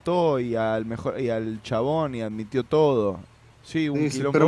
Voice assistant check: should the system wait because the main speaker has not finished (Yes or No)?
No